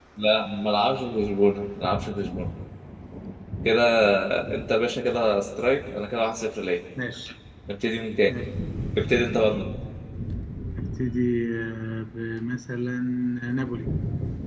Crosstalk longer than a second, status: none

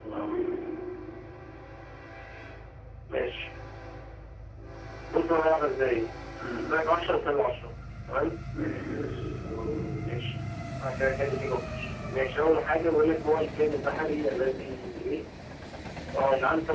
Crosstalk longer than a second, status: none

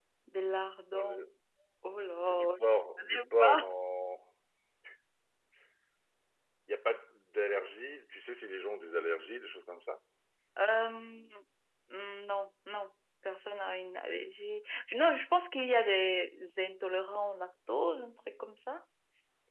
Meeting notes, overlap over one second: present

